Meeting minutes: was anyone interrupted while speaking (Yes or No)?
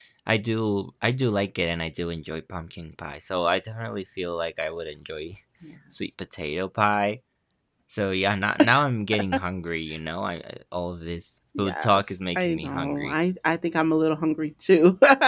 Yes